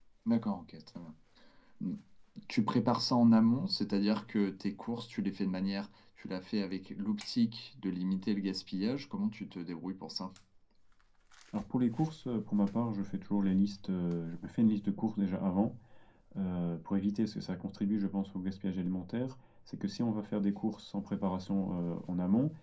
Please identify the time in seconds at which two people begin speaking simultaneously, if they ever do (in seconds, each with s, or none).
none